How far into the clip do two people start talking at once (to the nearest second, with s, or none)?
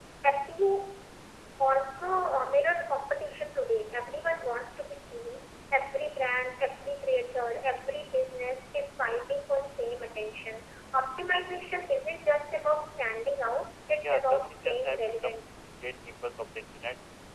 14 s